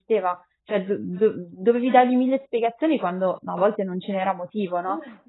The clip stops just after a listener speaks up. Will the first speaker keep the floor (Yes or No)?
Yes